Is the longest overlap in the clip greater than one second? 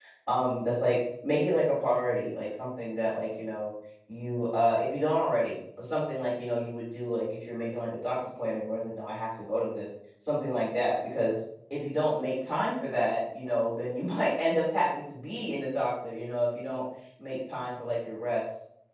No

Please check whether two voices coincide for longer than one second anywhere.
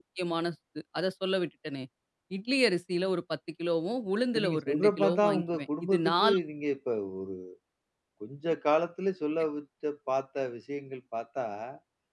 Yes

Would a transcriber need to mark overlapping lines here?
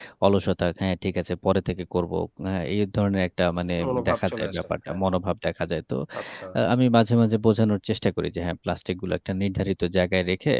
Yes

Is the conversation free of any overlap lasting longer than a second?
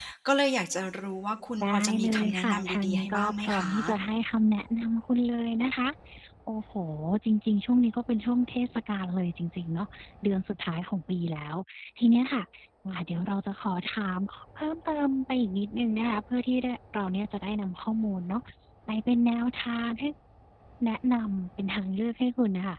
No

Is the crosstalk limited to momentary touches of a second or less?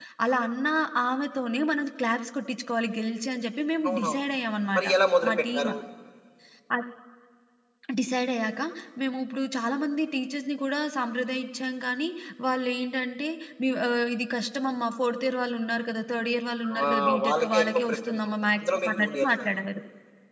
No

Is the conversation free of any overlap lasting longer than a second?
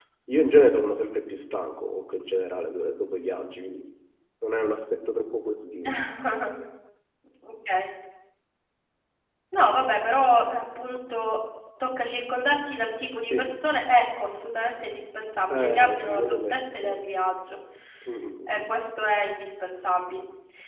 No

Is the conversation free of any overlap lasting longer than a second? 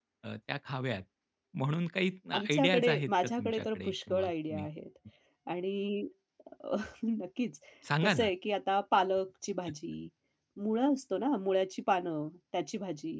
No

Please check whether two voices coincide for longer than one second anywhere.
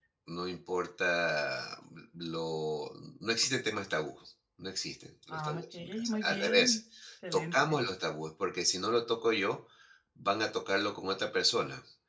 Yes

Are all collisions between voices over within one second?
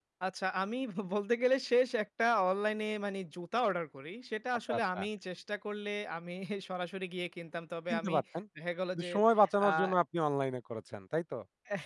Yes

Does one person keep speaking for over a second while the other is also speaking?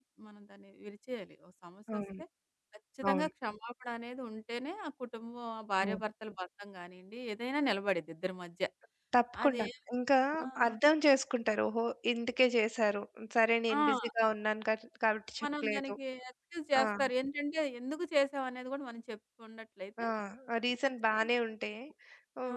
No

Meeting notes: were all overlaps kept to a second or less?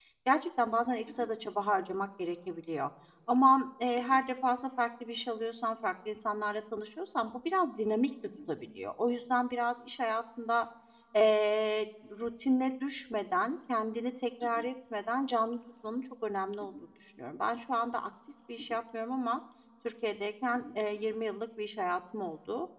Yes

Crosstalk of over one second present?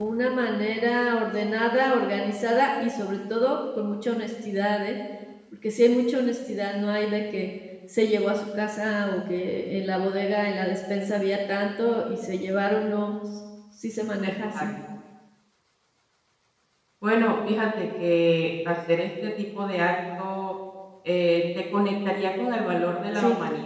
No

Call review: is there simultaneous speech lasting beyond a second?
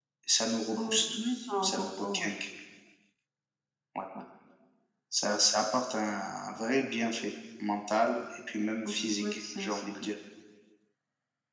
Yes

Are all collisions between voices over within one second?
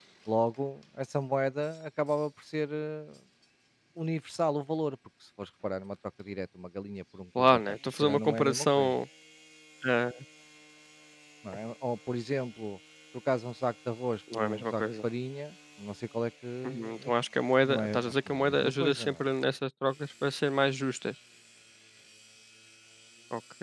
No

